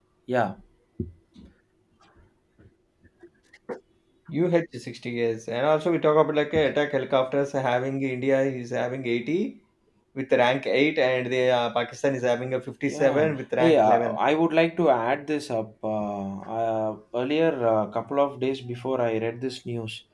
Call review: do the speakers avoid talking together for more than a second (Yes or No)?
No